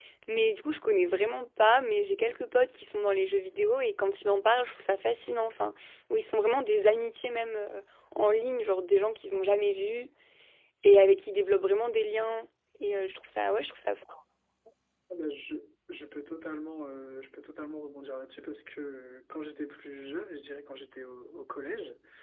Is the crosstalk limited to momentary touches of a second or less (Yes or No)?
Yes